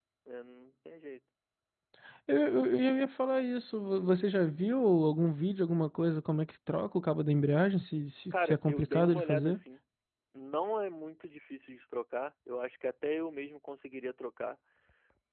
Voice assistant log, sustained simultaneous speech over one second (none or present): present